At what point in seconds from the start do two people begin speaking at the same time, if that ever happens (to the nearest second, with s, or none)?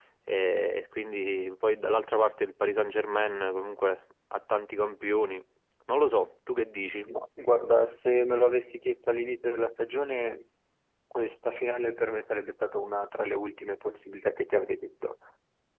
none